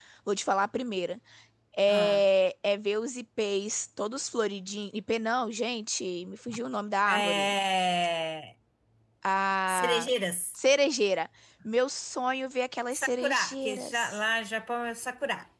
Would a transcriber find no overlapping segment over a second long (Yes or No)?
No